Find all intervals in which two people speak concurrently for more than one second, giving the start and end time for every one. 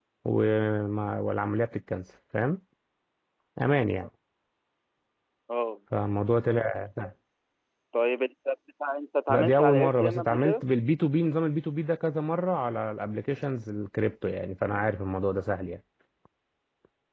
9.3-10.6

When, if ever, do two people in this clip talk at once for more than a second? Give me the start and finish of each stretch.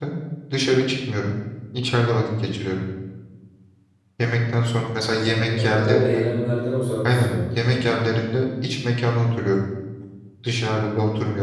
5.0-6.2

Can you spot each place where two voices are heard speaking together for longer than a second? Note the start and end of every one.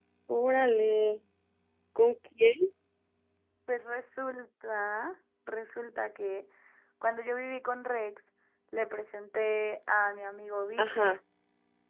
none

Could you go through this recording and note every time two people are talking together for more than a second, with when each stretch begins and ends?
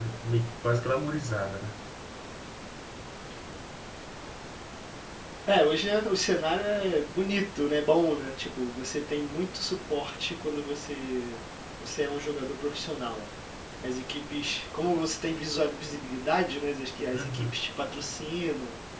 none

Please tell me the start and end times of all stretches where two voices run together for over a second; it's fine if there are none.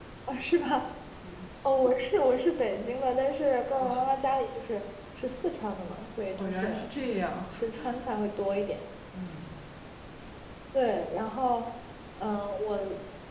none

